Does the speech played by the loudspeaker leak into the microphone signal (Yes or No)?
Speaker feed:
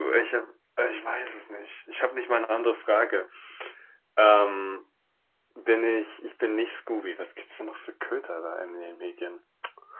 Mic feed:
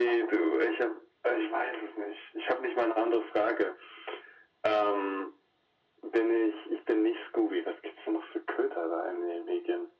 Yes